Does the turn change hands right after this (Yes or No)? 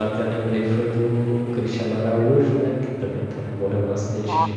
No